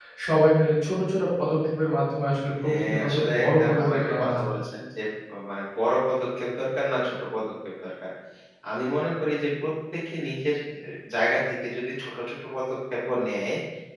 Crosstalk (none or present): present